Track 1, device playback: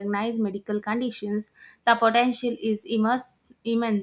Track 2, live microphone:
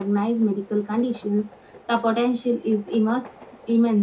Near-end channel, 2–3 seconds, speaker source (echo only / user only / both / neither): echo only